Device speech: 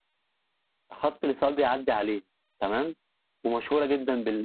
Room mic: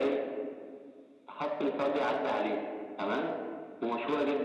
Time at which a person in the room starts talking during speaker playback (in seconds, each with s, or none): none